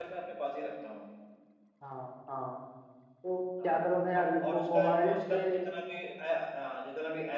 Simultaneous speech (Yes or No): Yes